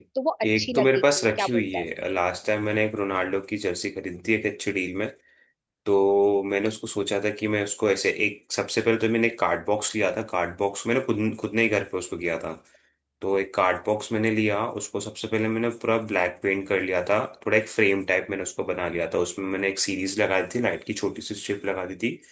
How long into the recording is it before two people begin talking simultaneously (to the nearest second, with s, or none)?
1 s